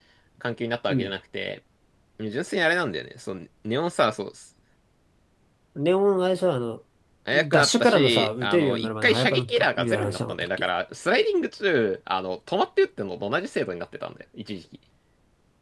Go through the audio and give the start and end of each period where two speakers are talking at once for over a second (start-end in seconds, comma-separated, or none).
7.5-10.6